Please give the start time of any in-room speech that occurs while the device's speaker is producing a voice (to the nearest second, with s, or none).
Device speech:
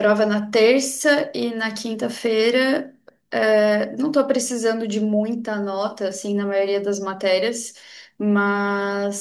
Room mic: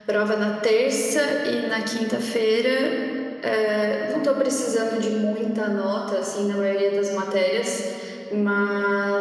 none